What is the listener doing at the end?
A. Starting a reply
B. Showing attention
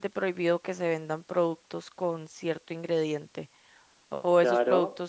B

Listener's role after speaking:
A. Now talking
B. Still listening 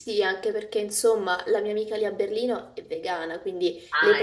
B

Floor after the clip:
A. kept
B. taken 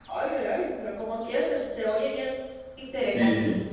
B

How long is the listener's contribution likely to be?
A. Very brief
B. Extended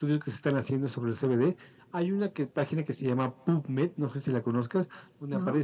A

